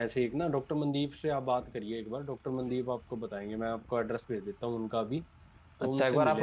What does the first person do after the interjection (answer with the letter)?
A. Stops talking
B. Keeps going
A